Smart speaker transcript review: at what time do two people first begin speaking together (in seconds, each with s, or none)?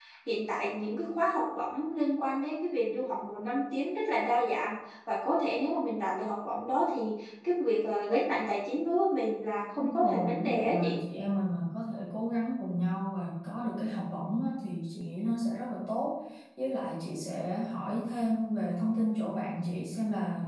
9.8 s